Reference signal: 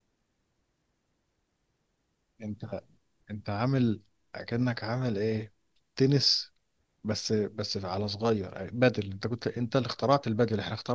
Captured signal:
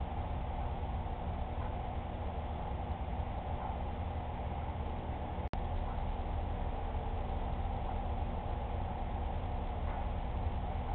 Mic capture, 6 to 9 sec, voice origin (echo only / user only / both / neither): neither